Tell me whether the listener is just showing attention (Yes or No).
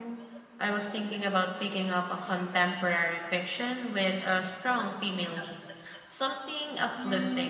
No